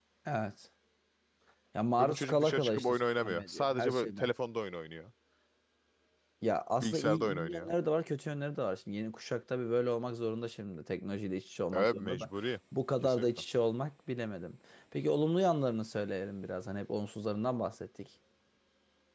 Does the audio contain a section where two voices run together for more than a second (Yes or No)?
Yes